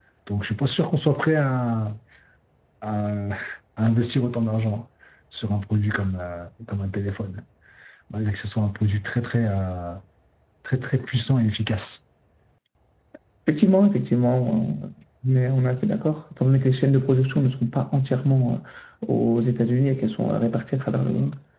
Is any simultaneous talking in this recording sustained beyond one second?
No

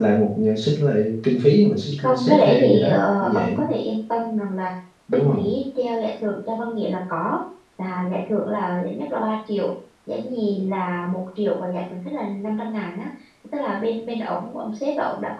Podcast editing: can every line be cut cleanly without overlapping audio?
No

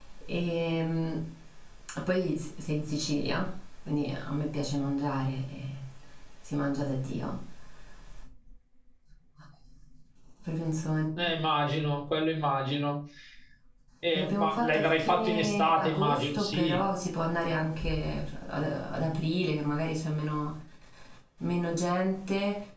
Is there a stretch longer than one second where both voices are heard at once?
Yes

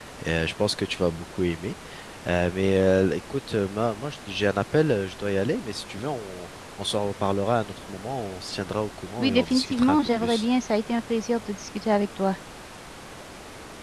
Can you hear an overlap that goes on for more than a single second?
Yes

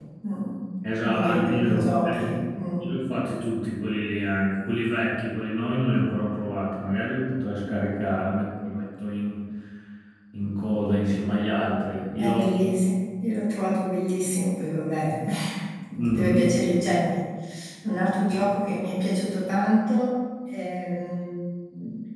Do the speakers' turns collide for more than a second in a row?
Yes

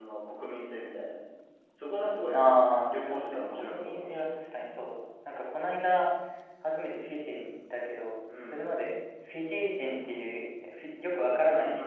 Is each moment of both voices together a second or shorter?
No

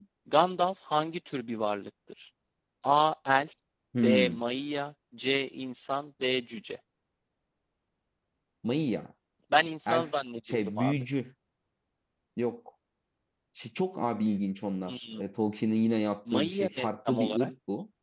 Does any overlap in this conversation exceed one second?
Yes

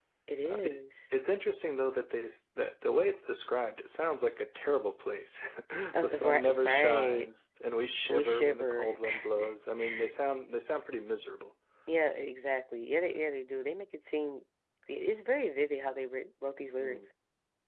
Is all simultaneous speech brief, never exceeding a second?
No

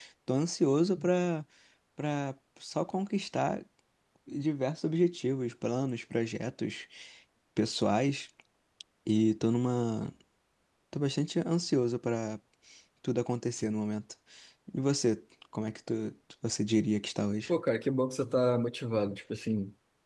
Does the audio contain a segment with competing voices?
No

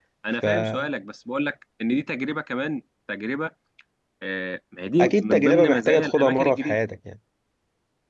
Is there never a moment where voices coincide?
No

